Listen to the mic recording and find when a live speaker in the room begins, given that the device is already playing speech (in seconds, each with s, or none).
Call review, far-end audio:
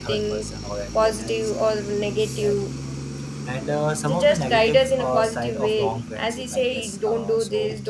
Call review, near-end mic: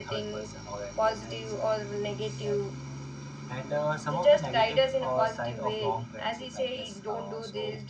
none